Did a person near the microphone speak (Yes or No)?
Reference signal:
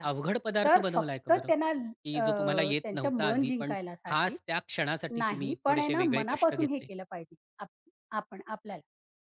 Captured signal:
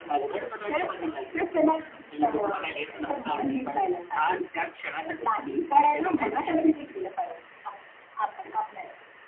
No